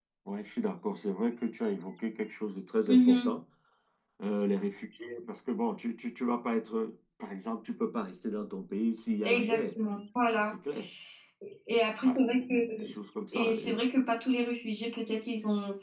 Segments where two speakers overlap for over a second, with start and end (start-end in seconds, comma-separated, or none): none